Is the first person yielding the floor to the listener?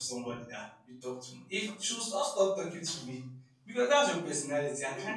No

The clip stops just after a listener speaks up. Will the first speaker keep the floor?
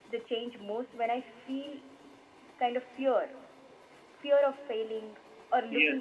No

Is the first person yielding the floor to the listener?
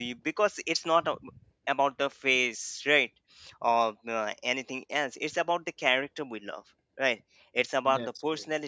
No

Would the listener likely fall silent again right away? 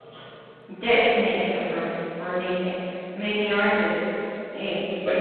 Yes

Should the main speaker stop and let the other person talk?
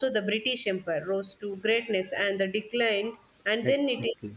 No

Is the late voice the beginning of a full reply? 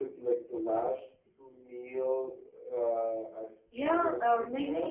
Yes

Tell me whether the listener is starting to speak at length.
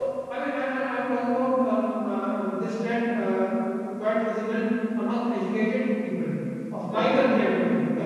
No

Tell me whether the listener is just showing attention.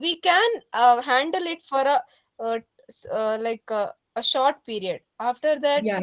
No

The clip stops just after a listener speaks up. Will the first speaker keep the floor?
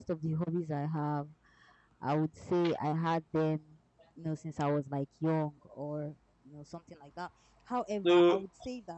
Yes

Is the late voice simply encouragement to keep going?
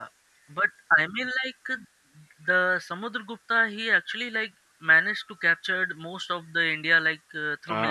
No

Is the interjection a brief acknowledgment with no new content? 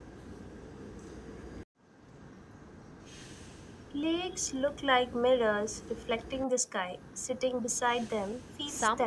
No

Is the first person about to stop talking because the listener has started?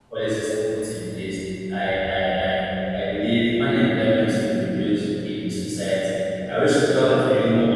No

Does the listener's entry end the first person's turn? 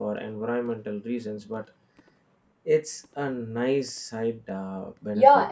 Yes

